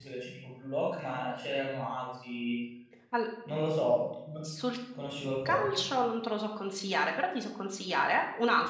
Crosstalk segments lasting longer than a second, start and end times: none

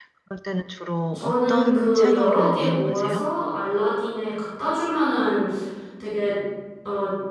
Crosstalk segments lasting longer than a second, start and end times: 1.1-3.2

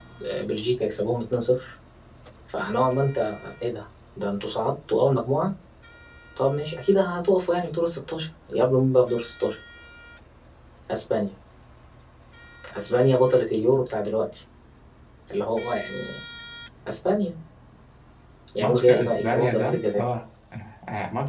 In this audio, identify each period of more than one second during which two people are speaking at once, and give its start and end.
18.6-20.0

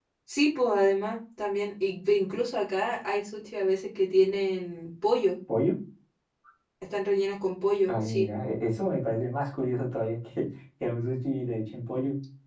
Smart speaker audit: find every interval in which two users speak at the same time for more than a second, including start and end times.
none

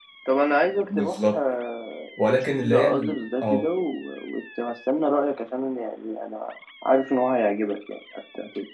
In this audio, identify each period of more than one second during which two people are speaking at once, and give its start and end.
2.3-3.7

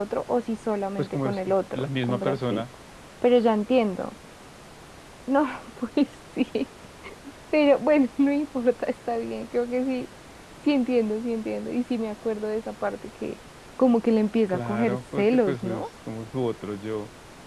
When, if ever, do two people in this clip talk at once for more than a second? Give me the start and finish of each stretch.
1.0-2.6, 14.5-15.8

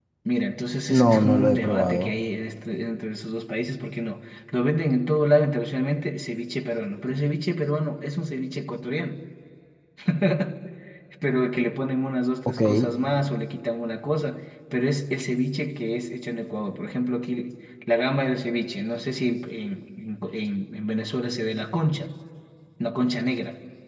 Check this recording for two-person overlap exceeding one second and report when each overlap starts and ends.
0.9-2.2

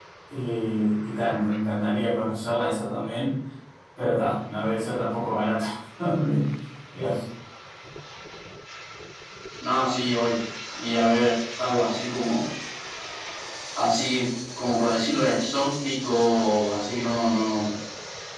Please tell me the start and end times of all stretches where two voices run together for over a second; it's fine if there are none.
none

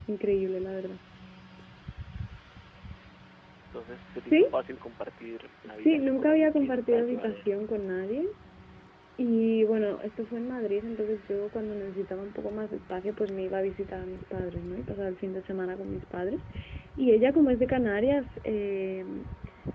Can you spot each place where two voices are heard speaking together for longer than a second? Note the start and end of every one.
5.7-7.5

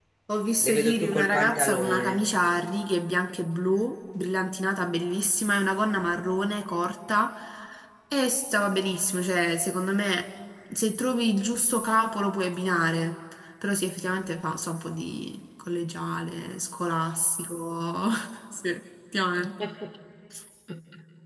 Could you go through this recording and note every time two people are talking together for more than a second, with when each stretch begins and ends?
0.6-2.2

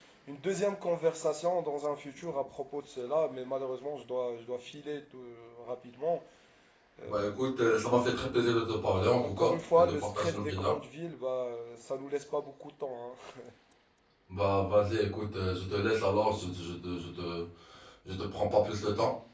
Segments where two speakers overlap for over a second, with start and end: 9.2-10.7

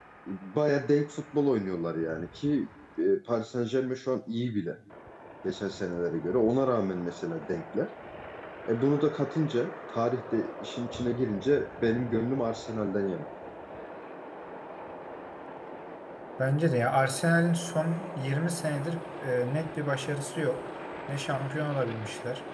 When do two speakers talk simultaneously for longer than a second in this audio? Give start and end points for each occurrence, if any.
none

